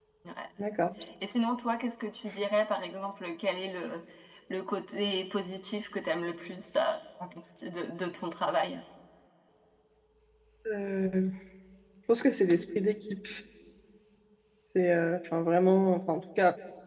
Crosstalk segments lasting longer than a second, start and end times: none

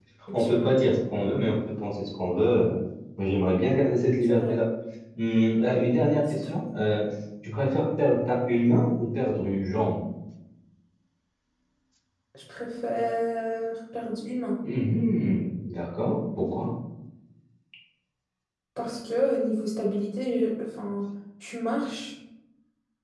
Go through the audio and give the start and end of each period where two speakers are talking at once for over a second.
none

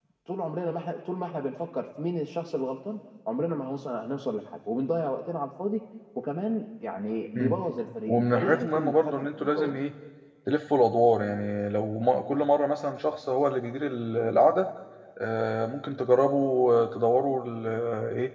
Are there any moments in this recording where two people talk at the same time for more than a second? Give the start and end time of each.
8.1-9.7

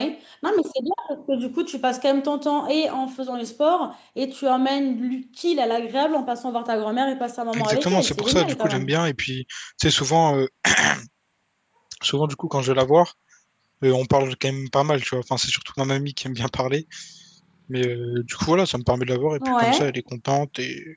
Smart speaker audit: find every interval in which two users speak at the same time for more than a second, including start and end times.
7.6-8.9

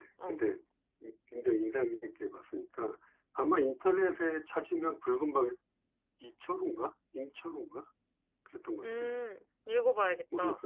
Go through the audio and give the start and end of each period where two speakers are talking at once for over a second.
none

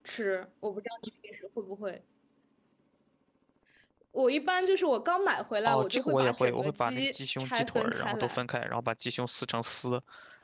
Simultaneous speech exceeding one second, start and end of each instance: 5.7-8.4

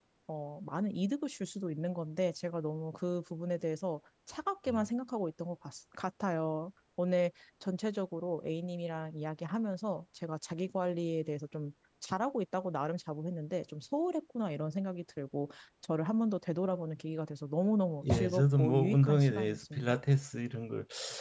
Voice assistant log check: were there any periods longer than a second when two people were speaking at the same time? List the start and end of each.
18.0-20.0

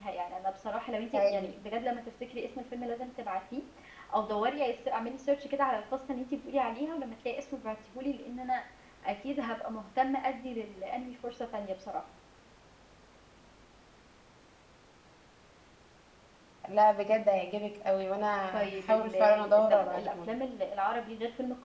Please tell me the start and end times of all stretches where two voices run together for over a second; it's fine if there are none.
18.5-20.3

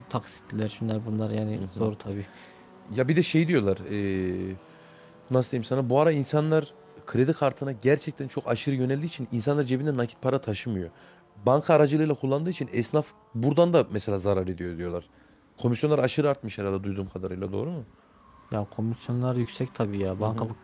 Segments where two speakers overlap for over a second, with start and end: none

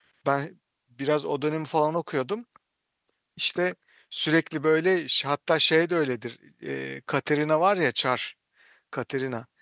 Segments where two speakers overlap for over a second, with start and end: none

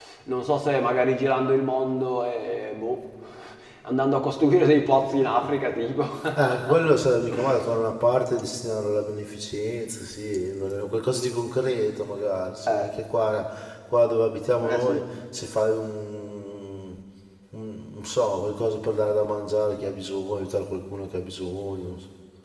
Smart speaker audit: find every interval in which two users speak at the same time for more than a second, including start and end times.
none

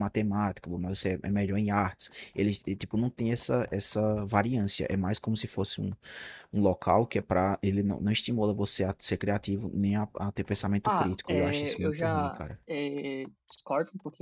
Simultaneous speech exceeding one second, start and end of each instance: 10.8-12.4

